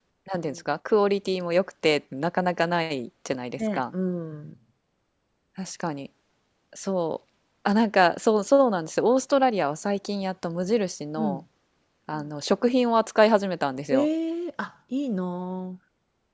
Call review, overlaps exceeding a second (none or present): none